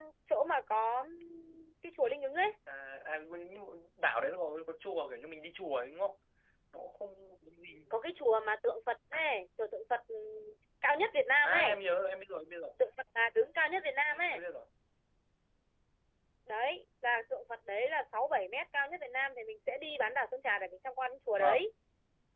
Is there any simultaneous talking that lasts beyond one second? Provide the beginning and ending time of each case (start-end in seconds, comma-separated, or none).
none